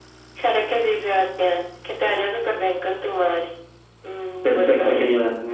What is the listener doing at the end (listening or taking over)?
taking over